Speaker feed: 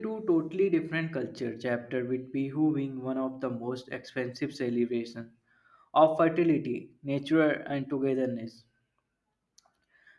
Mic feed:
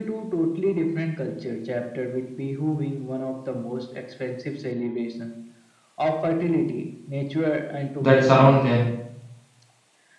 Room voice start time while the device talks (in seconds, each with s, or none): 8.0 s